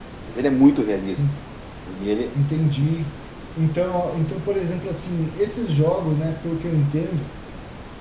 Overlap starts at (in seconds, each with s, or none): none